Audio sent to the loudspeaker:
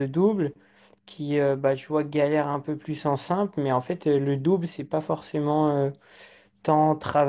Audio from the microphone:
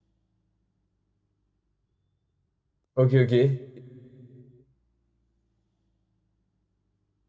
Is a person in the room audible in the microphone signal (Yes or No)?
Yes